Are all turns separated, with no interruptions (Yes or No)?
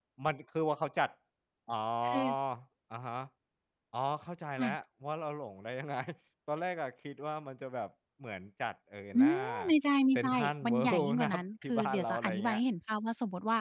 No